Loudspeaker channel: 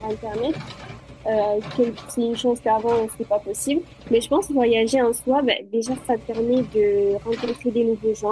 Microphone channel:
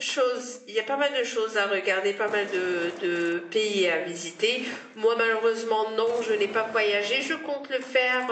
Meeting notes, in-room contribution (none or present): present